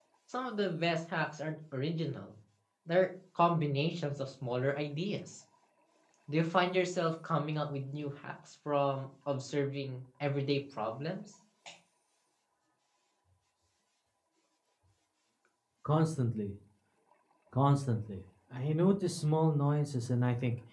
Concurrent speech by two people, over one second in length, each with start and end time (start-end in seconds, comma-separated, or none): none